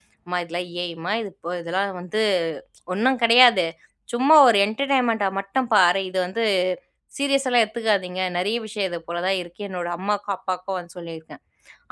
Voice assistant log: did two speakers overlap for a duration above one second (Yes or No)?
No